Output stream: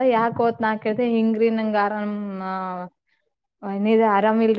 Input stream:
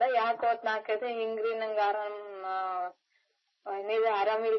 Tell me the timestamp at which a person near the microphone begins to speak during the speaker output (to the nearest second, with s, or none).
none